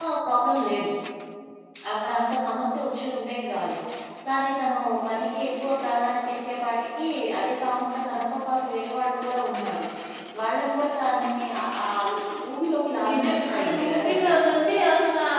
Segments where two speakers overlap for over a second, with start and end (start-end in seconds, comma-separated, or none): 13.1-14.3